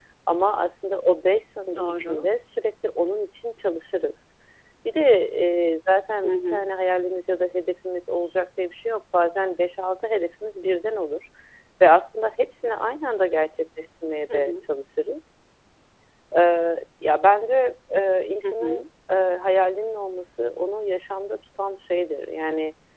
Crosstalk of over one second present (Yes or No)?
No